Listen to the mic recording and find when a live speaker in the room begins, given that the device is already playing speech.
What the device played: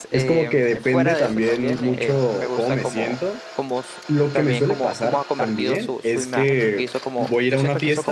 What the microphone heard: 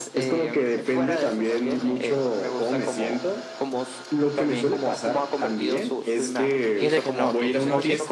6.8 s

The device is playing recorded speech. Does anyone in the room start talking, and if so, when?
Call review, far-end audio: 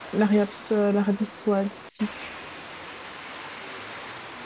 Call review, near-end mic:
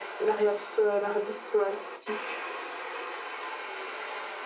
none

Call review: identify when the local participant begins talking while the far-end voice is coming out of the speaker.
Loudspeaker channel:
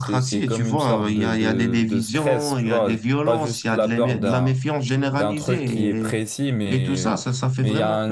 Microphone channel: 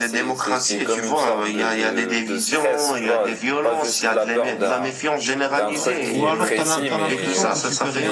5.7 s

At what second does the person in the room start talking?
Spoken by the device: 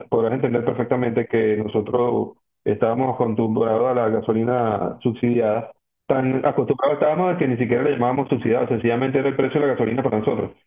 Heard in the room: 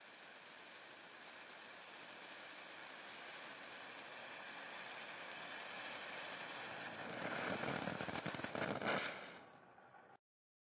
none

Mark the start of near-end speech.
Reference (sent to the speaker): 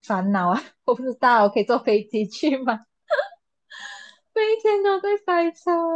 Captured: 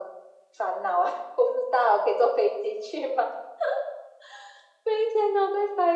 none

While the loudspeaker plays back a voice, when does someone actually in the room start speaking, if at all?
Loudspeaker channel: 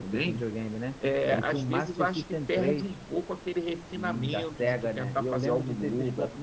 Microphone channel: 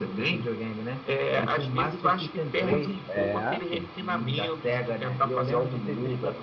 2.7 s

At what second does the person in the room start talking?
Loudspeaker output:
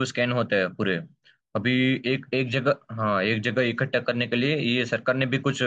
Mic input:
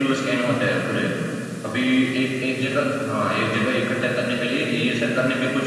none

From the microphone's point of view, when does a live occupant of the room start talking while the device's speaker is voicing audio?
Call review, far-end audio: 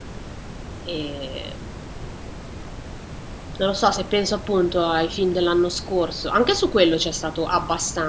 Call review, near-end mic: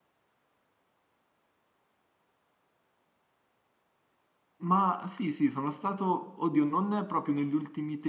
4.6 s

